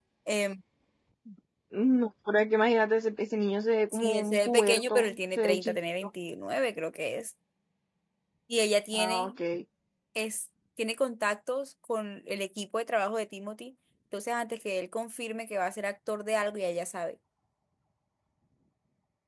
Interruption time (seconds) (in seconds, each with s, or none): 3.9 s